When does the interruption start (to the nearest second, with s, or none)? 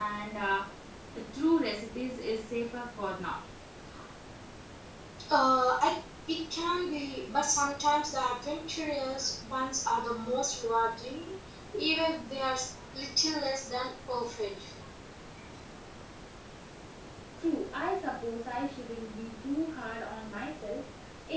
none